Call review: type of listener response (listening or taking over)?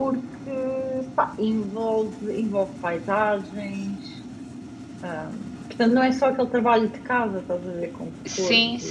taking over